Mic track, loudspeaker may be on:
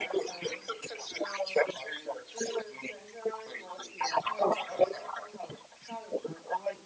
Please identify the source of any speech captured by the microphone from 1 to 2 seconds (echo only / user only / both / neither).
echo only